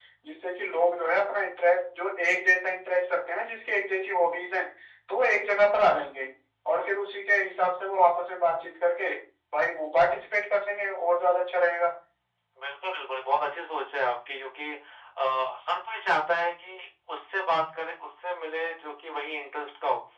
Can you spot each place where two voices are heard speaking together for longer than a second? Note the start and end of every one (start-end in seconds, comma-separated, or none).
none